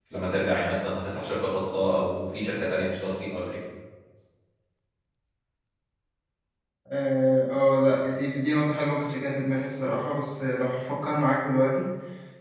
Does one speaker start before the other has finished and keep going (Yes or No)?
No